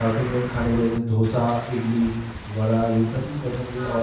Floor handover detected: No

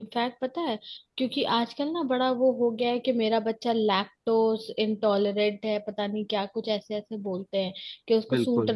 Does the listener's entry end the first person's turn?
No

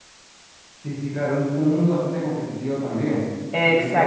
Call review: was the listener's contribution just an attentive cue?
Yes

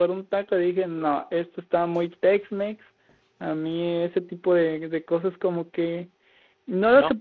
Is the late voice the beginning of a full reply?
No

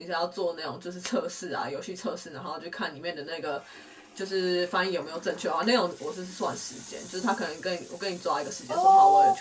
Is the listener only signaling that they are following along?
Yes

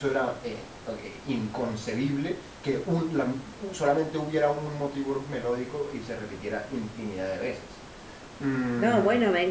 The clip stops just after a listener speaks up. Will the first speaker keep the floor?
No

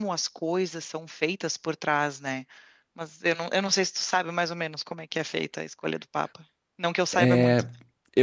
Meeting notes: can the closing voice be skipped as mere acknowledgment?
No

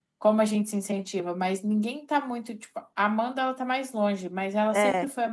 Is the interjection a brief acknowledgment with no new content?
Yes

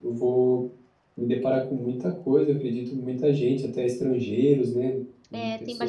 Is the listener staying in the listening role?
No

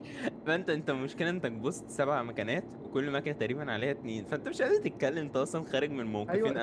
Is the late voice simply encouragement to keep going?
No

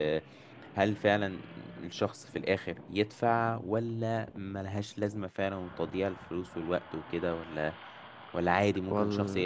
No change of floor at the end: No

